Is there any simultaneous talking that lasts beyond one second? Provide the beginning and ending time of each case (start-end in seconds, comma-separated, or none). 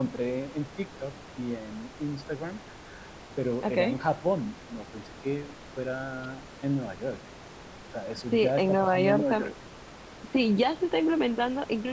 8.3-9.5